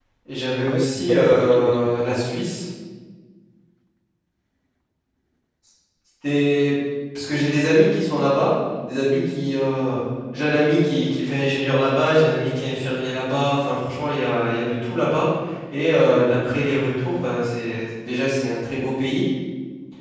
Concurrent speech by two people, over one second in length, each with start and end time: 0.7-2.4

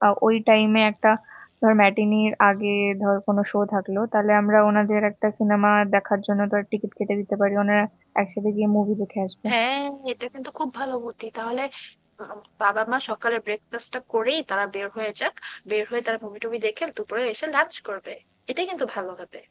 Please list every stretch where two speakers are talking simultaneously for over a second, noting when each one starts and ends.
none

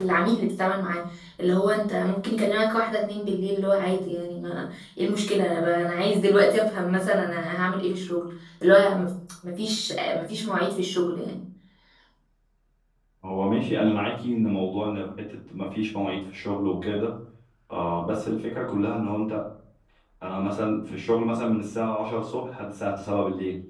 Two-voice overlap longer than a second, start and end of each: none

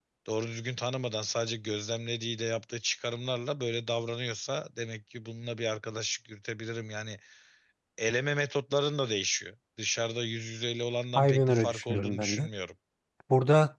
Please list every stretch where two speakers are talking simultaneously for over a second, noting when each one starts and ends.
11.2-12.5

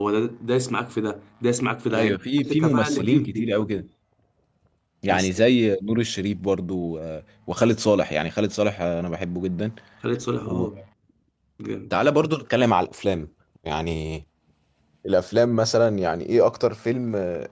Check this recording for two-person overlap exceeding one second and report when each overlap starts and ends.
1.9-3.5

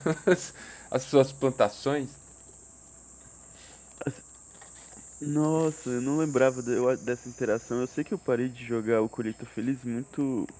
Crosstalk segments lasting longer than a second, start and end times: none

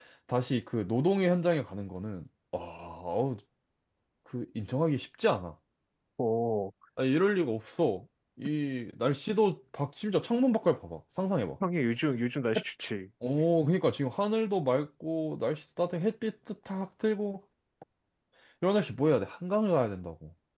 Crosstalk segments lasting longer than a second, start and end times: none

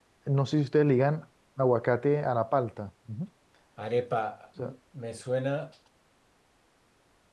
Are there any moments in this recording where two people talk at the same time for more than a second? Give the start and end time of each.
none

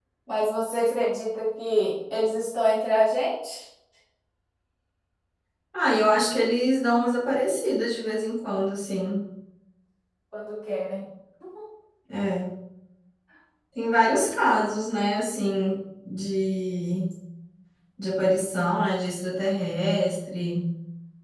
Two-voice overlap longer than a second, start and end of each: none

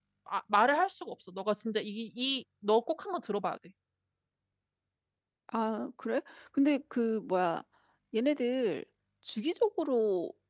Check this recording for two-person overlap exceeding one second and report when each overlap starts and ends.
none

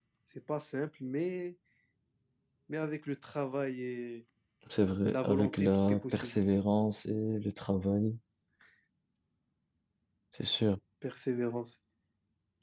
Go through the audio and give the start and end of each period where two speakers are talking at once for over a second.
5.0-6.4

